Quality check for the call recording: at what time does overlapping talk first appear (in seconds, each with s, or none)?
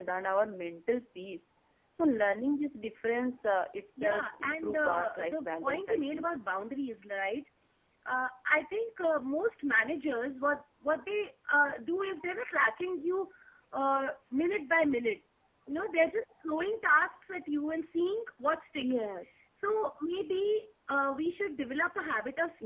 4.0 s